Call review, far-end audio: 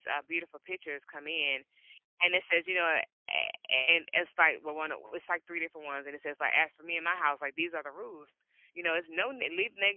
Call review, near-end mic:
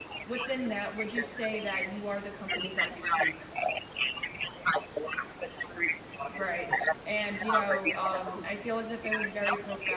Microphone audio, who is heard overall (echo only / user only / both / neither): both